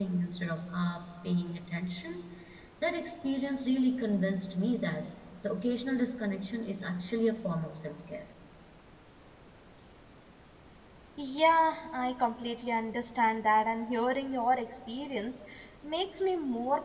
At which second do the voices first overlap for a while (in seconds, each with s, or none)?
none